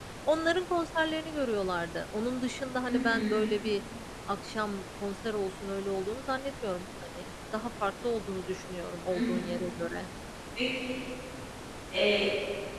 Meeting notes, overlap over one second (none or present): none